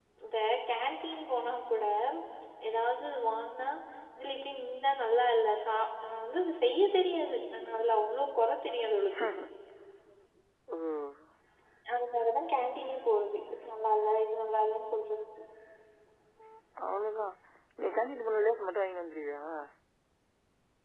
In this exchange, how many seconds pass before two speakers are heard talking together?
none

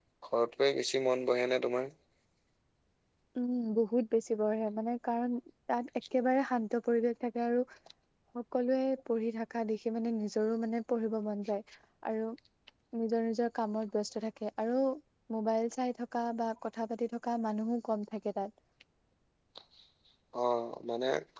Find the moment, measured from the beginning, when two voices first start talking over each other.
none

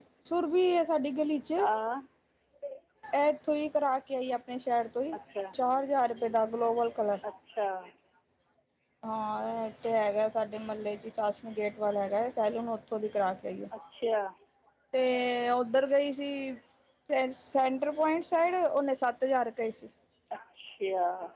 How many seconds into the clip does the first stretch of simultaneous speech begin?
none

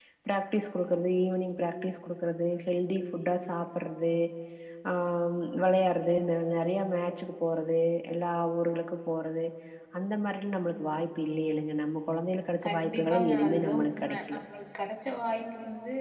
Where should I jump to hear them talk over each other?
13 s

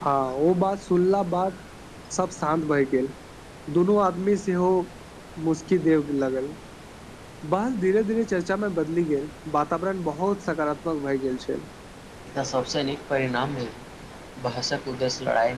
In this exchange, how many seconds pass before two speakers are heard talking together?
none

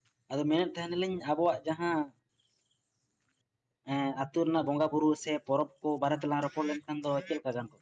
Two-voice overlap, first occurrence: none

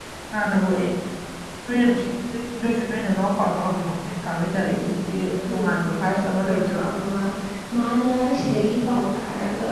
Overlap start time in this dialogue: 5 s

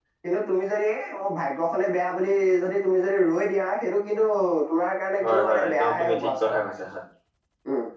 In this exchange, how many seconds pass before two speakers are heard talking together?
5 s

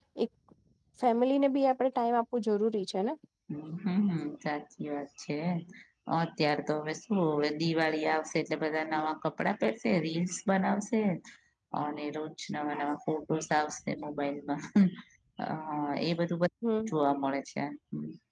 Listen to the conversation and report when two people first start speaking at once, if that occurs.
none

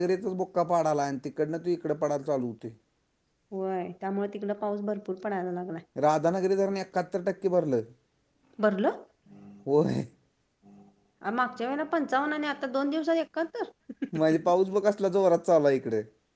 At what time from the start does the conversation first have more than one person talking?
none

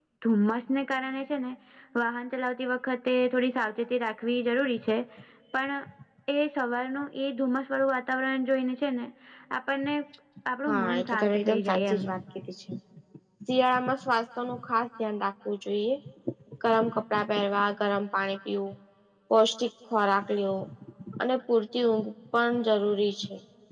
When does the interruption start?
11 s

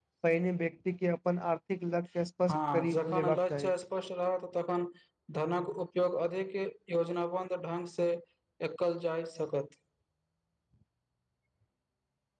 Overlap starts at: 2 s

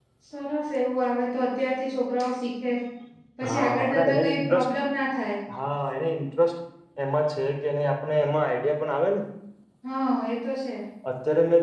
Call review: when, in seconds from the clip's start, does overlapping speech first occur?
3 s

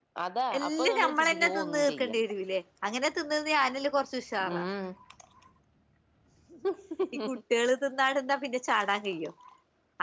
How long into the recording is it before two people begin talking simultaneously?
1 s

